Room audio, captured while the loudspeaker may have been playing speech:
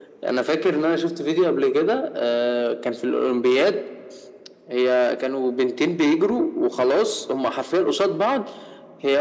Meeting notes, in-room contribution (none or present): none